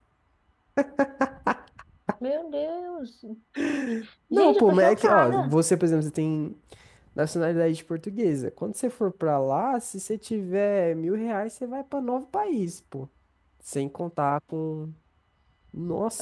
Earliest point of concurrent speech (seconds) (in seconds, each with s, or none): 4.3 s